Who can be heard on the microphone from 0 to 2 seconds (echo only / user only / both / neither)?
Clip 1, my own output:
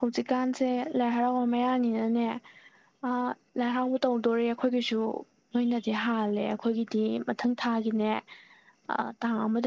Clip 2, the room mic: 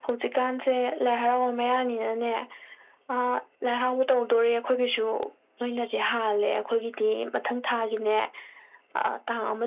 echo only